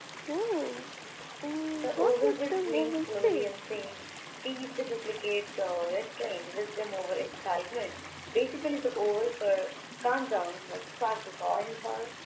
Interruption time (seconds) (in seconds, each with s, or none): 1.8 s